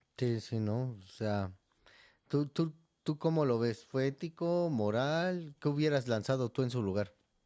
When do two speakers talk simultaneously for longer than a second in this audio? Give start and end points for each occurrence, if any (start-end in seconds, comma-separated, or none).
none